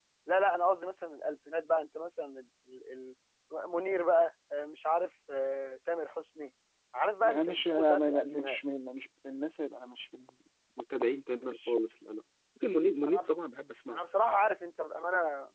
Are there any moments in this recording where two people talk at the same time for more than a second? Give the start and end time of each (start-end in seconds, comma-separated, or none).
7.2-8.6